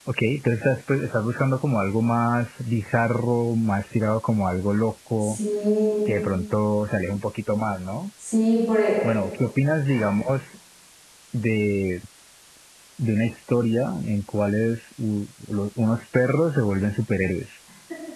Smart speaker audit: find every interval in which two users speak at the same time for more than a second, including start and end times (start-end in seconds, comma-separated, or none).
none